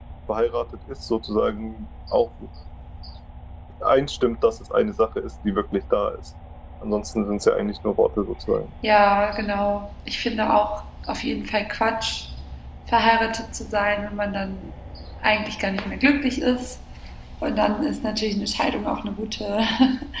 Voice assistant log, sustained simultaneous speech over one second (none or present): none